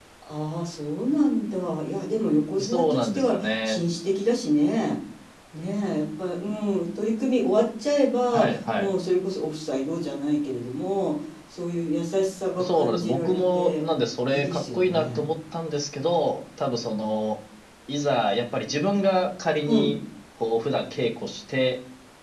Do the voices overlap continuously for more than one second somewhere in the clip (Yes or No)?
Yes